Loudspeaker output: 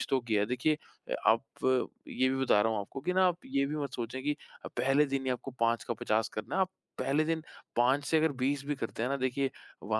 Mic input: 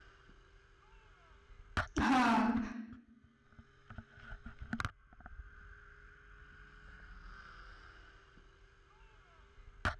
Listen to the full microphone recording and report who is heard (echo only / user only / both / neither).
user only